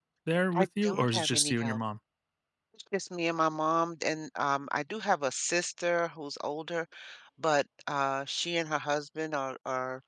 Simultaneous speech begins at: 1 s

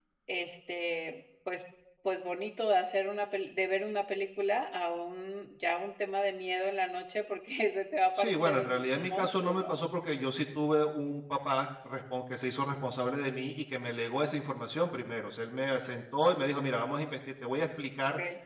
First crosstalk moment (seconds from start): 8 s

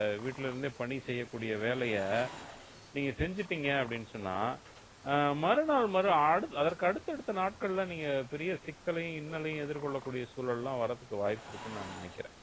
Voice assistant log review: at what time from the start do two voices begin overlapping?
none

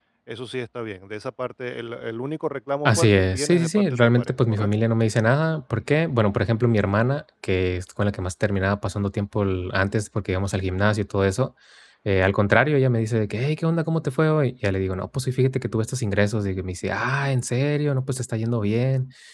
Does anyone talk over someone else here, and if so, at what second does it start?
3 s

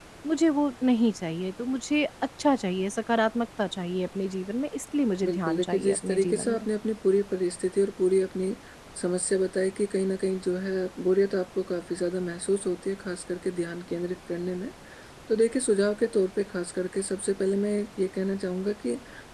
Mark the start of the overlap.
5 s

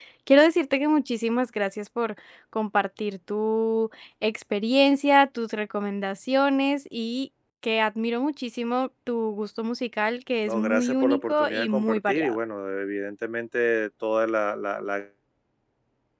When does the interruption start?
10 s

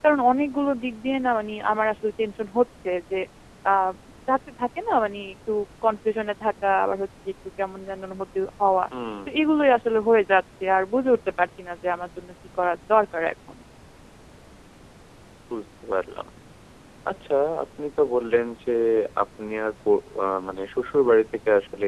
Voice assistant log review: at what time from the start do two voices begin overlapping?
none

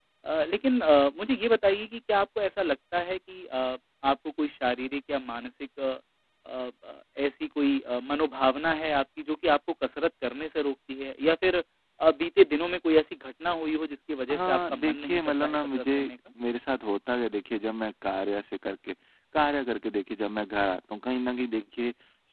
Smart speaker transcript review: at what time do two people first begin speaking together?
14 s

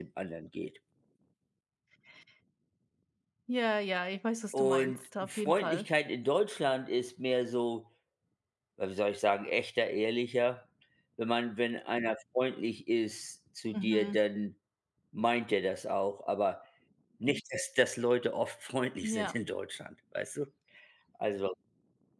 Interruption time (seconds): 5 s

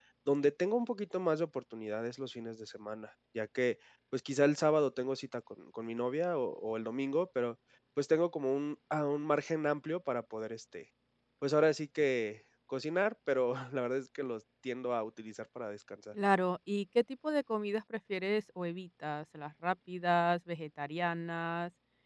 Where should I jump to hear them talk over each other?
none

